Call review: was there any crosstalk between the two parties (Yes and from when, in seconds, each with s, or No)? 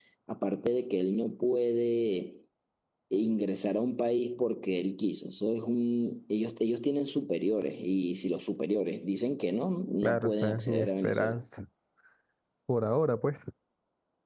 Yes, from 10.0 s